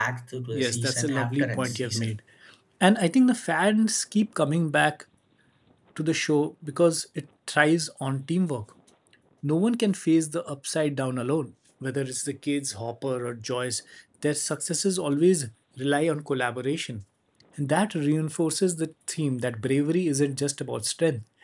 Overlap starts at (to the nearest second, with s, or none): 1 s